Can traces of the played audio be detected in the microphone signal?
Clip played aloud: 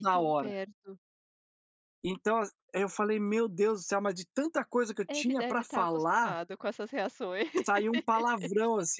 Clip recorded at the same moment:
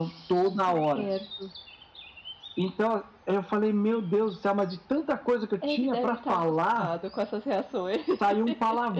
Yes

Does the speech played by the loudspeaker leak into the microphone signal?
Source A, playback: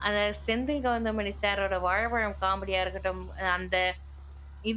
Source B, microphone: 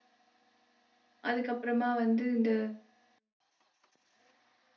No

